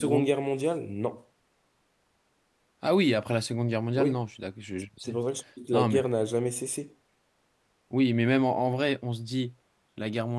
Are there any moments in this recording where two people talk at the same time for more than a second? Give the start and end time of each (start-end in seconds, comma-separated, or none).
none